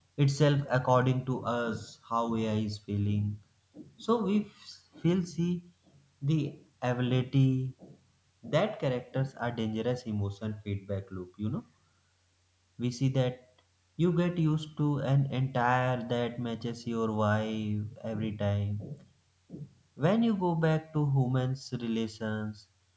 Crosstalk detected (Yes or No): No